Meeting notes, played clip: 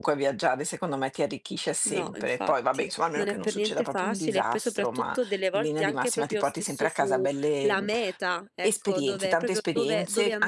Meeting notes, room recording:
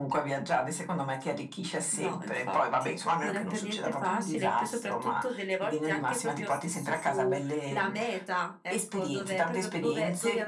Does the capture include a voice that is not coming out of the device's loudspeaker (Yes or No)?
No